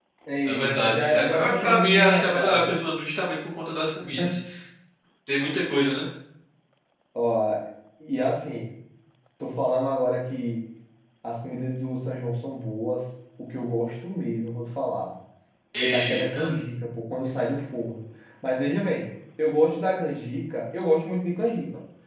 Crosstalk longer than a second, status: present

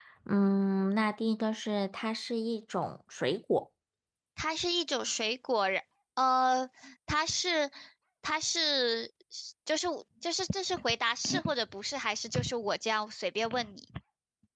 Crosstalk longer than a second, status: none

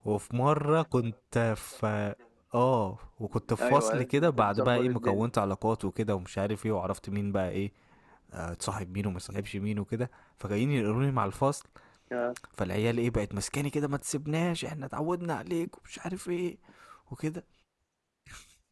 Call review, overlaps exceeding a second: present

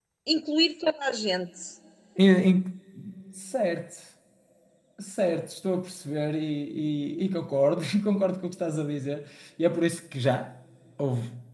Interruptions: none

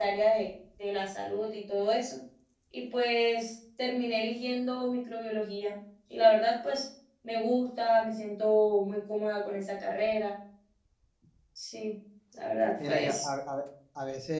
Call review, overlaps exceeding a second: none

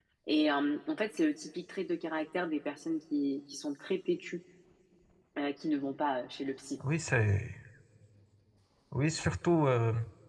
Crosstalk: none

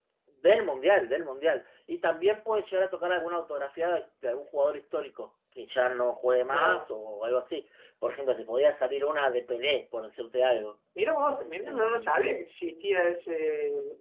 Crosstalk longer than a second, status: none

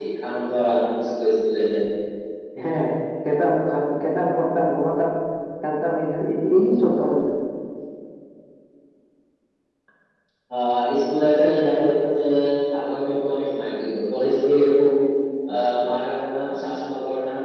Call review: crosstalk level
none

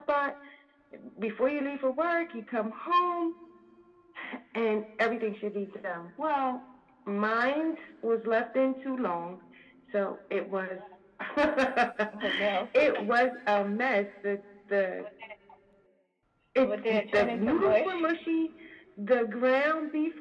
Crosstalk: present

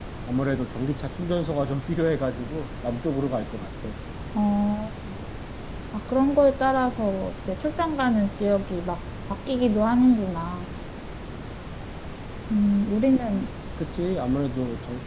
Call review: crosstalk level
none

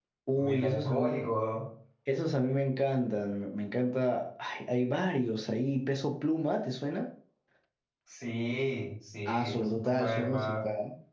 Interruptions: present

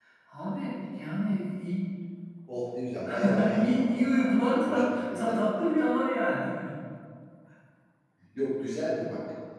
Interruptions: present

